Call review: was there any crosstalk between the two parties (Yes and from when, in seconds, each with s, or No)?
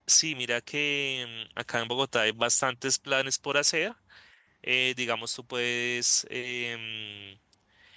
No